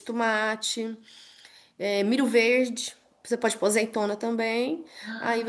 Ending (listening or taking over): listening